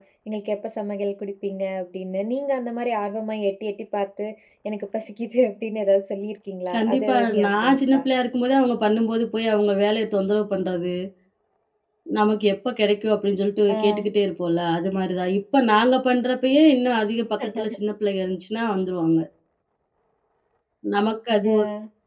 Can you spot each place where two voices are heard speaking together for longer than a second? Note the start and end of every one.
6.7-8.0

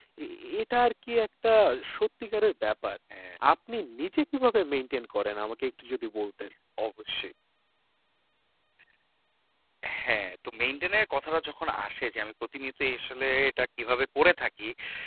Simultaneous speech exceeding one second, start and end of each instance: none

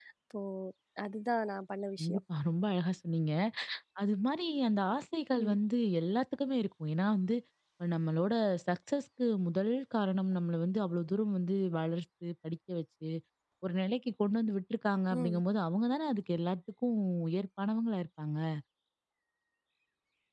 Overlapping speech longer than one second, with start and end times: none

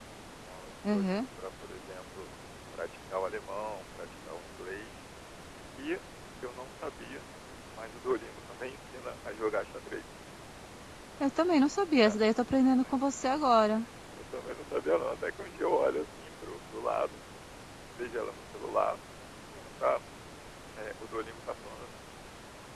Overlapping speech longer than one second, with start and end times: none

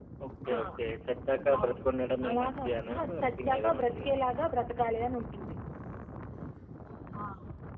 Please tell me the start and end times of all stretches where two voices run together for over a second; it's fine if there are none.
2.3-4.2

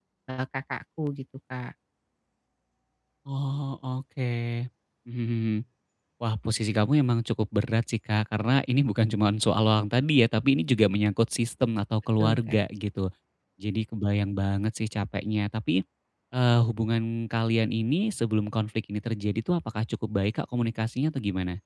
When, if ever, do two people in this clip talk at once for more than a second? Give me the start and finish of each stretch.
none

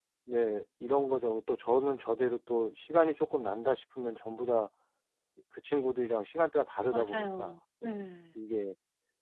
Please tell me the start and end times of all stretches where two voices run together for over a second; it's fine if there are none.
6.9-8.4

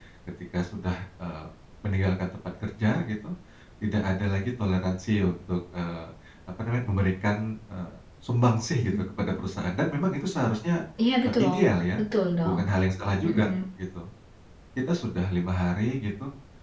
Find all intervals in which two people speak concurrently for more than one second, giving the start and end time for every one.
none

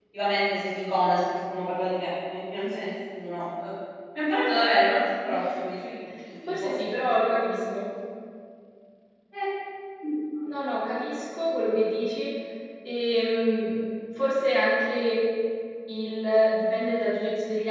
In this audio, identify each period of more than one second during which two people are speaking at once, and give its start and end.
none

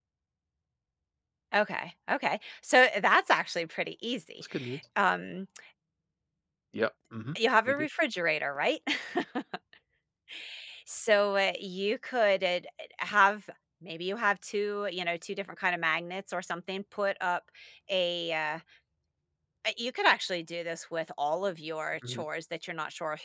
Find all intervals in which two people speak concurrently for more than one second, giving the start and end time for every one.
none

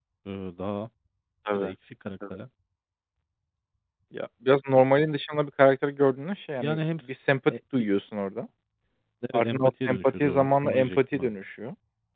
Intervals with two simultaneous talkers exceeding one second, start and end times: 9.3-11.4

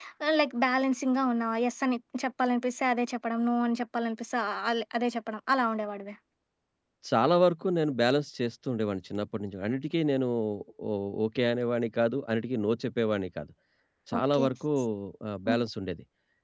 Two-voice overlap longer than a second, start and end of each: none

